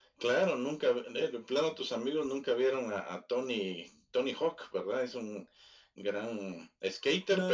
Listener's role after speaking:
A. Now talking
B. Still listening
A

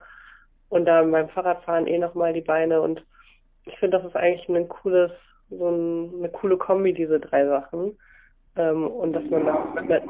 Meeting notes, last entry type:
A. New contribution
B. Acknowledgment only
A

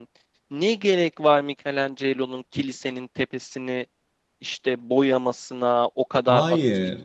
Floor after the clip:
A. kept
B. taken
A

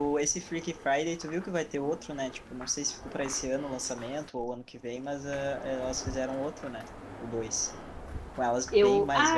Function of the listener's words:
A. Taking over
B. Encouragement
B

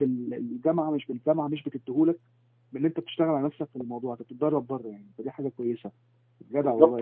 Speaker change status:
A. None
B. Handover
B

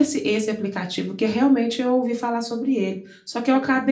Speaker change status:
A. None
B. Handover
A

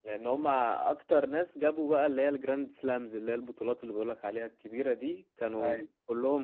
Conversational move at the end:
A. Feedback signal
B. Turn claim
A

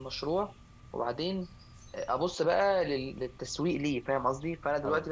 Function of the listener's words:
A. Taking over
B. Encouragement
B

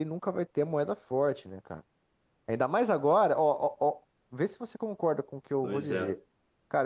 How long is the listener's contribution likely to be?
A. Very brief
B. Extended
A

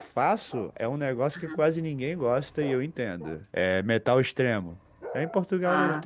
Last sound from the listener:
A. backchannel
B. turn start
A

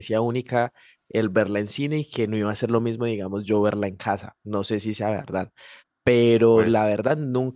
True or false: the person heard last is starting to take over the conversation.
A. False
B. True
A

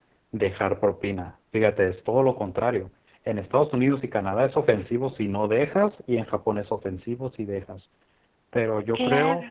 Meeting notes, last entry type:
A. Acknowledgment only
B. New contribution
A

